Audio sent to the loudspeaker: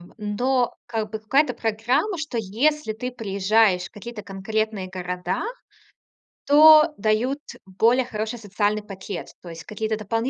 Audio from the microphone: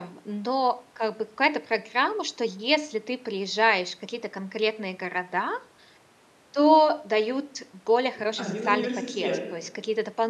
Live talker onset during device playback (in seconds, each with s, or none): 8.1 s